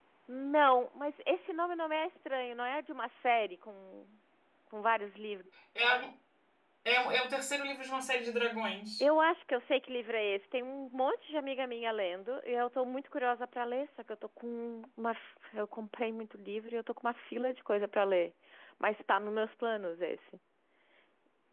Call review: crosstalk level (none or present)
none